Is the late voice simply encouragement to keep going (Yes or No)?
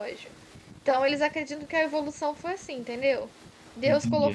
Yes